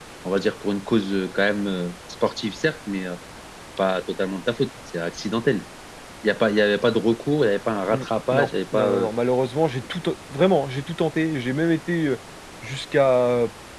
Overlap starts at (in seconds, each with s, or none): 7.9 s